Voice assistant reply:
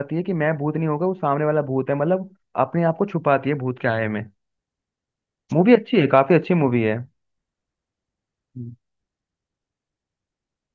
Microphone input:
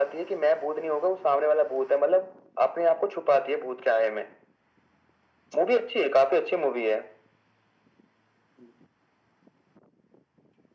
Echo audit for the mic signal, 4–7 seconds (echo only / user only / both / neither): echo only